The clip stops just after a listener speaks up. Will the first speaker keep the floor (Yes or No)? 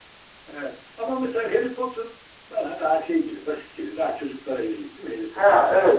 No